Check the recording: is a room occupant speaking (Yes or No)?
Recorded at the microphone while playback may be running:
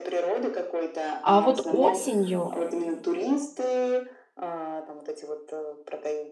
Yes